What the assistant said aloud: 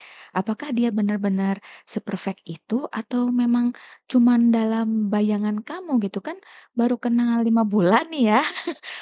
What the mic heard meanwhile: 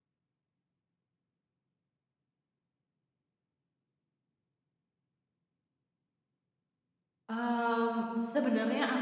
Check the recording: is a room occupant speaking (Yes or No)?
Yes